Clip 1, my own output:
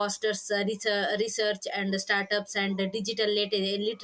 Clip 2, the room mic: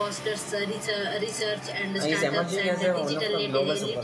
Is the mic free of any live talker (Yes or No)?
No